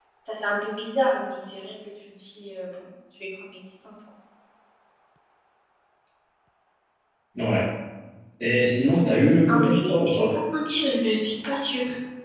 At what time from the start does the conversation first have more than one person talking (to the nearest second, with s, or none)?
9 s